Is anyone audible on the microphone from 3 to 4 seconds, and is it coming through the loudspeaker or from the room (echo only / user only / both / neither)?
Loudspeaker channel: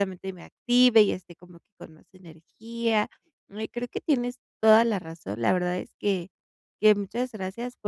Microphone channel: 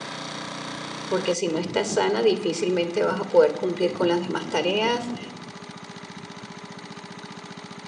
user only